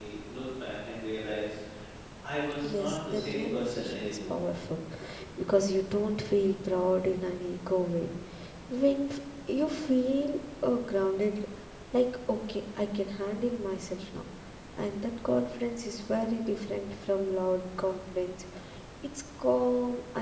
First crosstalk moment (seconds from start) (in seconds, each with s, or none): 2.6 s